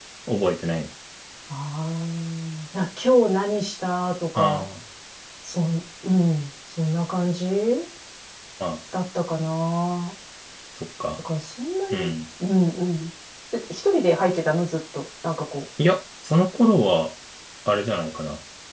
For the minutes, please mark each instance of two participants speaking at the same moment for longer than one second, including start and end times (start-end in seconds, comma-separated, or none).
none